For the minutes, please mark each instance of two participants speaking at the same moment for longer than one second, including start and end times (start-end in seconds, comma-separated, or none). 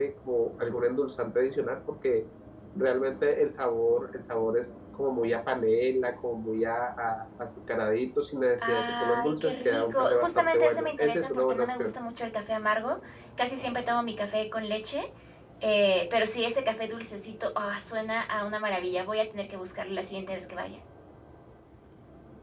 8.7-11.9